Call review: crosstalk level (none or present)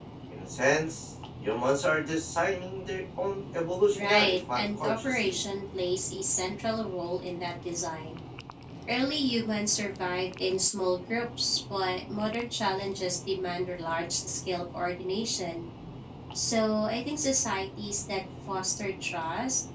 present